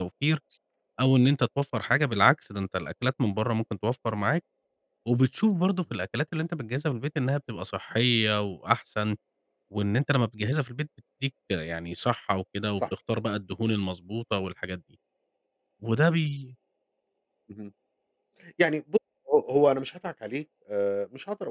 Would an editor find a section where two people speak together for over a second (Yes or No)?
No